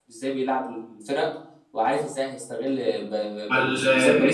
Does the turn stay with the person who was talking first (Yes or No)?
Yes